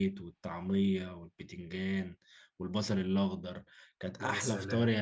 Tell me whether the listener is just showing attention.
Yes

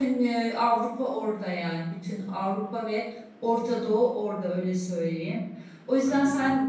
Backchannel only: Yes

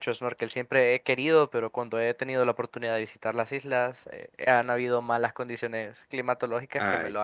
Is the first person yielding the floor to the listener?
Yes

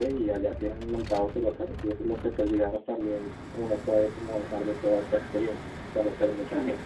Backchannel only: No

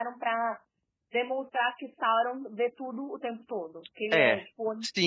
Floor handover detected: Yes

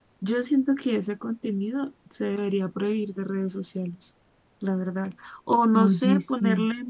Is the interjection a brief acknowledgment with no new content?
Yes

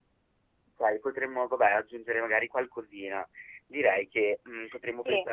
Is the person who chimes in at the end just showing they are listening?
Yes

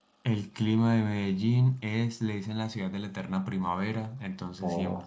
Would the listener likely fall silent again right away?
Yes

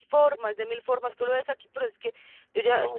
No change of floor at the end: Yes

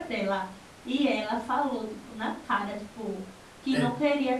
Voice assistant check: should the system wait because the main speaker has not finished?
Yes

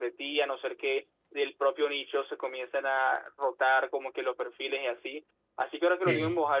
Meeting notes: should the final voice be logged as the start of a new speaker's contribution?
No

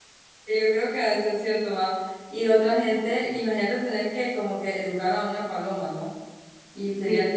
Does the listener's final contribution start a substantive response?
No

